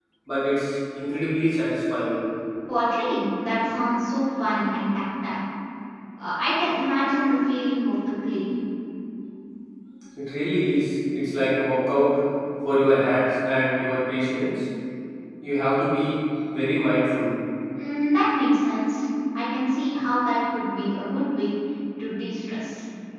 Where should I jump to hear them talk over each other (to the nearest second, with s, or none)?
none